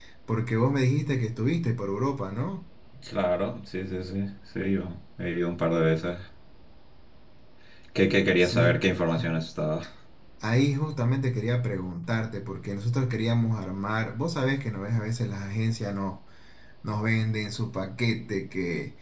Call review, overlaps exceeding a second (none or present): none